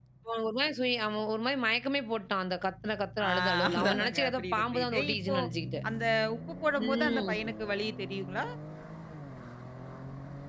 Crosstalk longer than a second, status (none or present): present